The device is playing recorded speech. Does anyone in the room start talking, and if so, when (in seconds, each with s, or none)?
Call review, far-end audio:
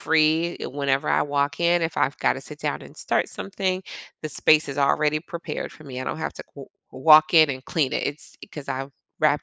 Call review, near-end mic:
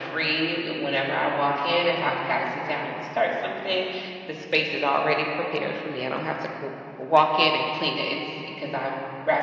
none